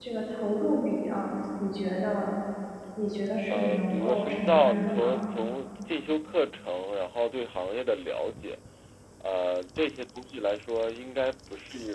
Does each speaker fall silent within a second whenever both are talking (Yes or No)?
No